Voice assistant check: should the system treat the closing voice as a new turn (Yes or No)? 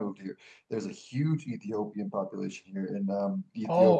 No